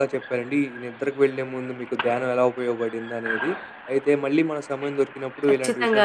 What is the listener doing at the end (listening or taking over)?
listening